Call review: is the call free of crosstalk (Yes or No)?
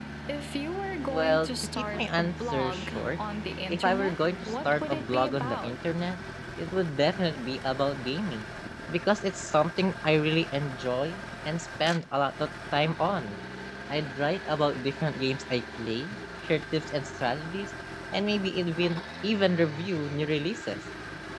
No